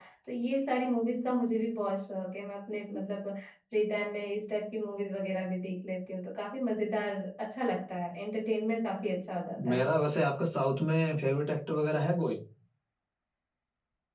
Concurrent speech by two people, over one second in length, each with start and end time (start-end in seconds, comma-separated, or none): none